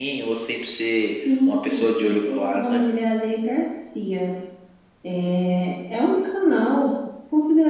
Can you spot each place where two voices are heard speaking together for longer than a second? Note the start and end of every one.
1.5-2.8

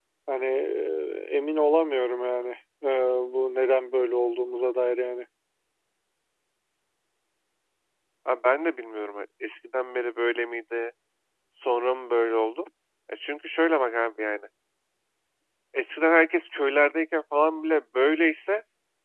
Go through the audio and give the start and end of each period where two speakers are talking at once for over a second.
none

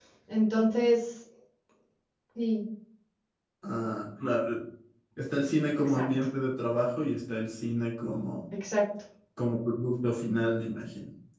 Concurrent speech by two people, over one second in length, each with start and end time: none

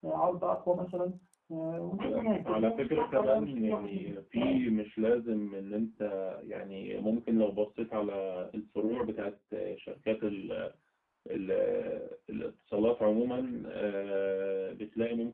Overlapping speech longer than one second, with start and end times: 2.0-4.7

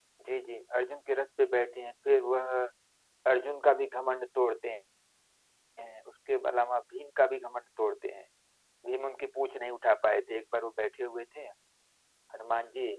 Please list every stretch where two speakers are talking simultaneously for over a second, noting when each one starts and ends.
none

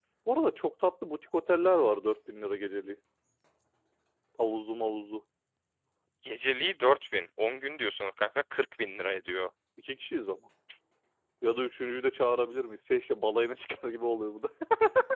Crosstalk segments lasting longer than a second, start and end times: none

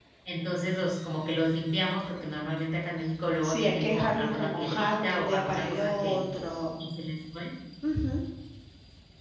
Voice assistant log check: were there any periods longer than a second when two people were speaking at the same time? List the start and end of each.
3.4-6.2

